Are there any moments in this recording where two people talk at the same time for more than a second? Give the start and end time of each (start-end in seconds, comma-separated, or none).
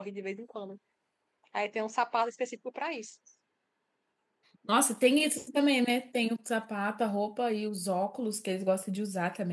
none